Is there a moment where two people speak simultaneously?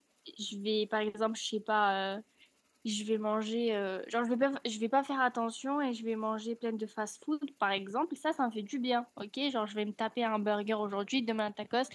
No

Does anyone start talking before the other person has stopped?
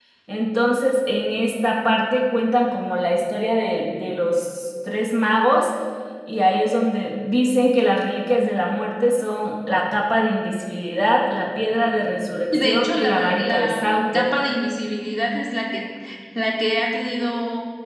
Yes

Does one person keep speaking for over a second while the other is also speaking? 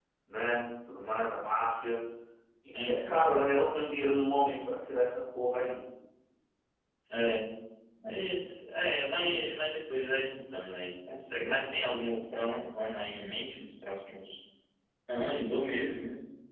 No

